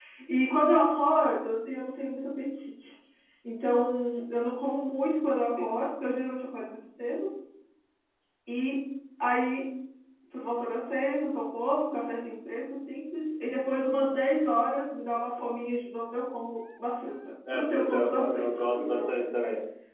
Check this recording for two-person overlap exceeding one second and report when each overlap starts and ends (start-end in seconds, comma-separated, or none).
17.5-19.2